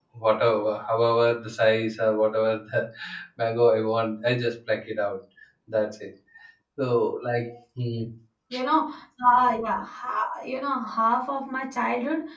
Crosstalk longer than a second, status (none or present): none